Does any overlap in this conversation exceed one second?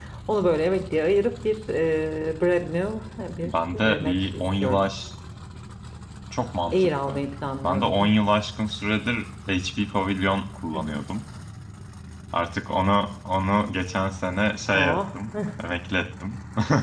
Yes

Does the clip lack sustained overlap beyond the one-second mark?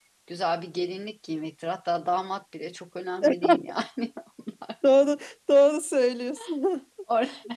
Yes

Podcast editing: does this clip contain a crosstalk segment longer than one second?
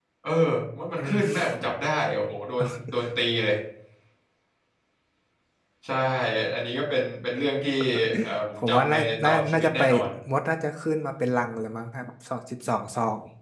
Yes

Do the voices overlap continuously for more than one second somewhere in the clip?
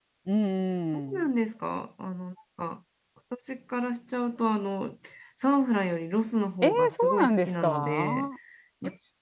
Yes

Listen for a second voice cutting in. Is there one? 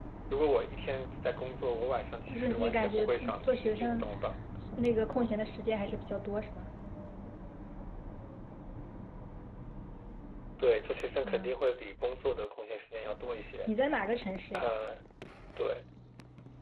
Yes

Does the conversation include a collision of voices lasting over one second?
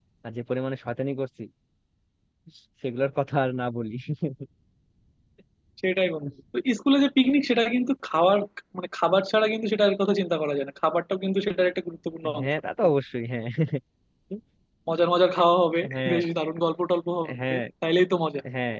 No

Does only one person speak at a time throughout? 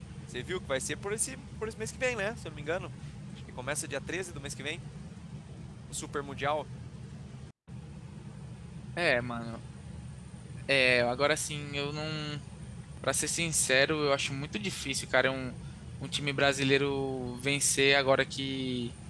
Yes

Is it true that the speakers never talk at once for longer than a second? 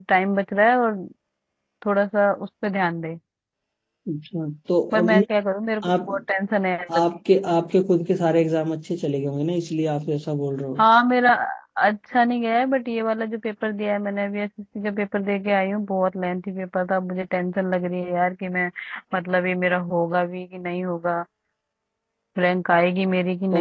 Yes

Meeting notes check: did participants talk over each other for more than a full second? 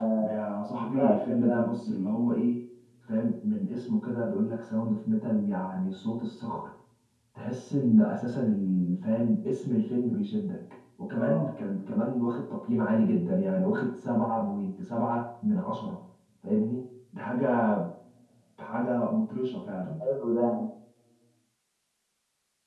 Yes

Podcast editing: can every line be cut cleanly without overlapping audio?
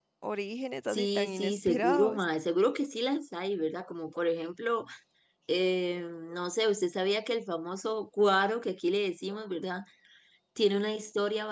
No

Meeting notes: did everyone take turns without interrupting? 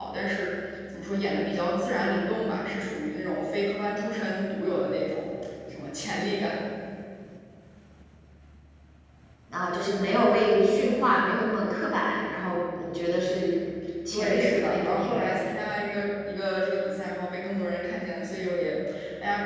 No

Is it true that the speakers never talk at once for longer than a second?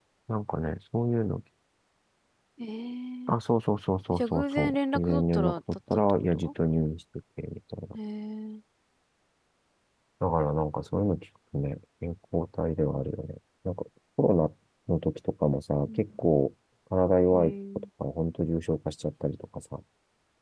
No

